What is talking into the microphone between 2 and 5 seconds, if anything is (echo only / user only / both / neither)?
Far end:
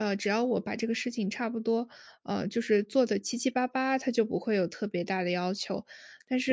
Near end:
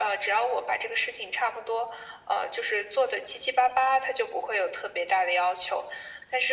echo only